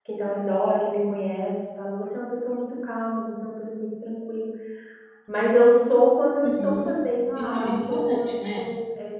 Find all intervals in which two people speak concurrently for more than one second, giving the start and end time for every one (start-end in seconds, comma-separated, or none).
7.4-8.7